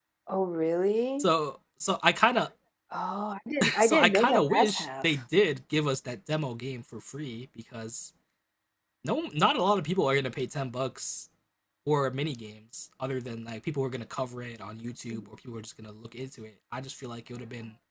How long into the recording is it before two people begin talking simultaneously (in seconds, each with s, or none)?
3.8 s